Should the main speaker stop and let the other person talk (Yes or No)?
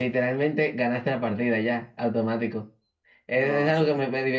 No